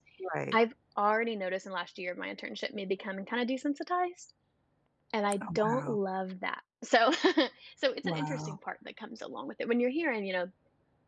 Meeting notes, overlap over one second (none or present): none